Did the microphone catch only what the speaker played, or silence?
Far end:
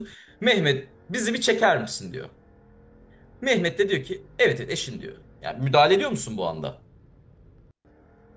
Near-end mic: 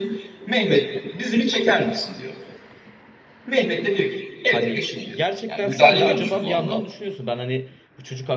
No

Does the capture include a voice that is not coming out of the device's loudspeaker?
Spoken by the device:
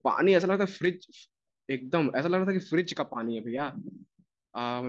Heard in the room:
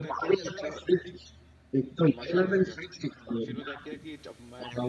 Yes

